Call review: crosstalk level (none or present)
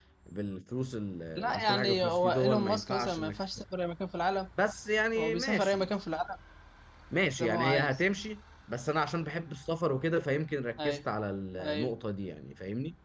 present